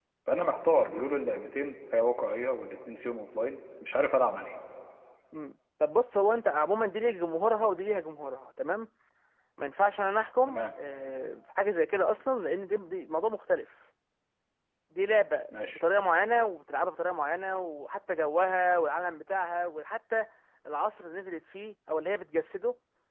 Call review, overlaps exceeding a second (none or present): none